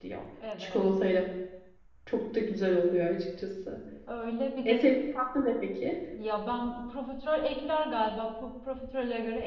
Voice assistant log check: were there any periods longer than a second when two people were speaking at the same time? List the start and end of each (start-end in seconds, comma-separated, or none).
none